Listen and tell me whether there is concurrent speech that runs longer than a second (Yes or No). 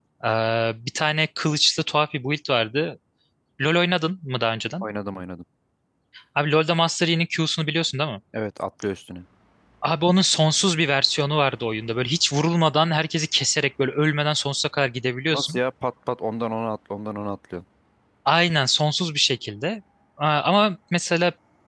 No